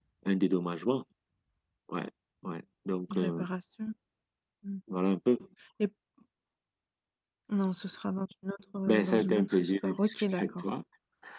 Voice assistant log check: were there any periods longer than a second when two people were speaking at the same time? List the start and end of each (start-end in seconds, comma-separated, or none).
8.9-10.6